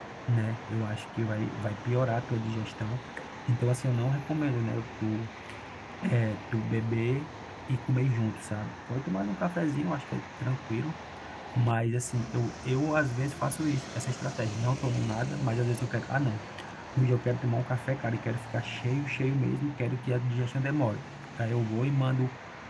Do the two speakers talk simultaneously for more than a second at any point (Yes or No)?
No